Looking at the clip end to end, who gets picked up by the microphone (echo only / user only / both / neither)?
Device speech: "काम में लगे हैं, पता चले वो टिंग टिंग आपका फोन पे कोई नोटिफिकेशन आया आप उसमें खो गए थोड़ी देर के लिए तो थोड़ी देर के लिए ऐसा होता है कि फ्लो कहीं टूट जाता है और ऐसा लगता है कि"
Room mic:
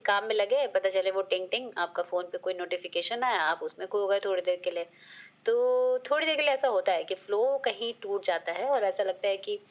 echo only